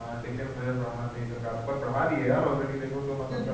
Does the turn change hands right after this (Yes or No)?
No